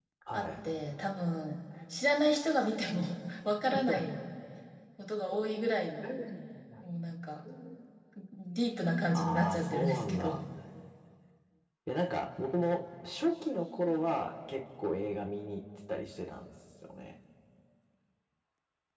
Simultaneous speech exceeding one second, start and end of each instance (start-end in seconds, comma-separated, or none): 9.2-10.4